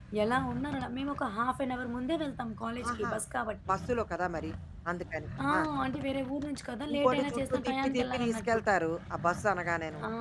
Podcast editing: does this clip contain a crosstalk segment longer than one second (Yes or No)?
Yes